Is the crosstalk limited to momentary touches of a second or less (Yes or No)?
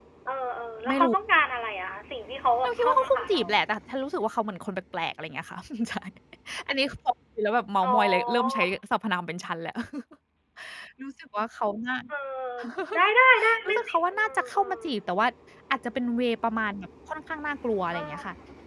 No